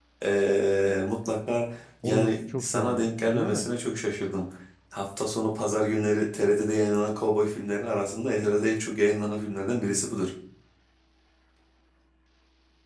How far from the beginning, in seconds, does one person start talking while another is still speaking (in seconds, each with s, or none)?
2.0 s